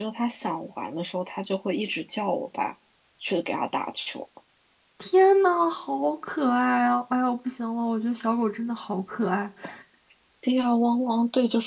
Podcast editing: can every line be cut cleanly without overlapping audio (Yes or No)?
Yes